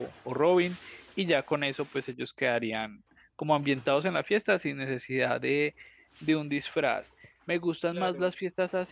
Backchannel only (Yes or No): Yes